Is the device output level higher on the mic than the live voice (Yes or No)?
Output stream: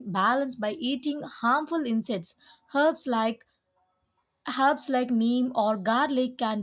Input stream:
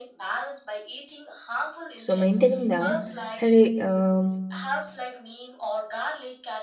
No